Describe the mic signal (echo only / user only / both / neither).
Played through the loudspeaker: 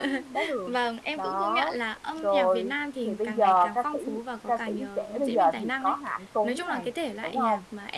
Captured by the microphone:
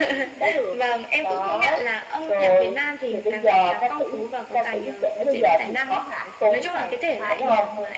both